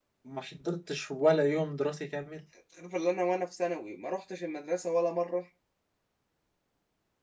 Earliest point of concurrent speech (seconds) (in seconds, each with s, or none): none